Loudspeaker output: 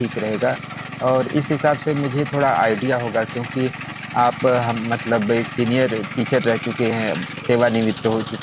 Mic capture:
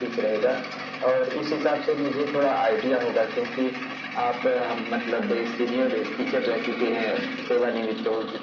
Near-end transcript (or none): none